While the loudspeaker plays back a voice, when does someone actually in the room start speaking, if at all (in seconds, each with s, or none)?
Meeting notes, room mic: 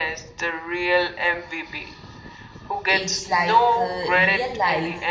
2.9 s